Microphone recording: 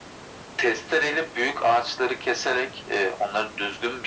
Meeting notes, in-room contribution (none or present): none